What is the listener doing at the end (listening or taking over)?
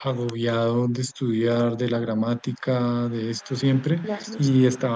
listening